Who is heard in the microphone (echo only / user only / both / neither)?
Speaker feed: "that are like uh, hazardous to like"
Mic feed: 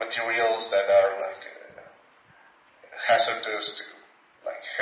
echo only